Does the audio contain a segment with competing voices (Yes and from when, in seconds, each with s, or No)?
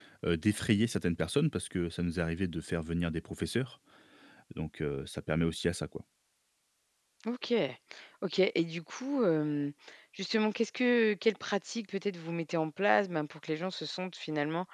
No